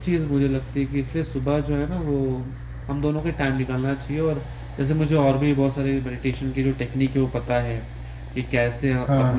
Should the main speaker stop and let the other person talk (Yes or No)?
No